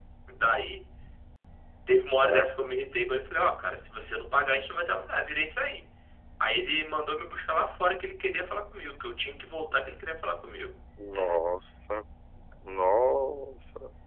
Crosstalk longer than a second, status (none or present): none